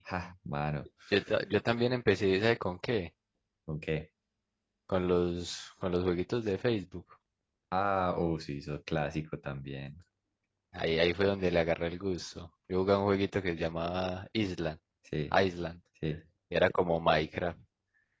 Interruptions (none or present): none